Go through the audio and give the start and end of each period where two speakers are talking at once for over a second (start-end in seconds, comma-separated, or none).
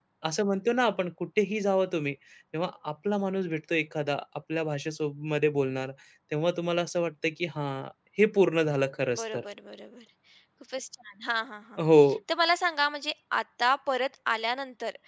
none